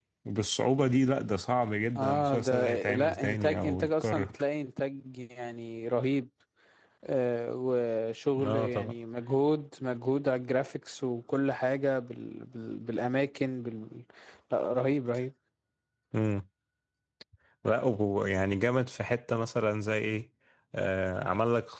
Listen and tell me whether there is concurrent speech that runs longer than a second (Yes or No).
Yes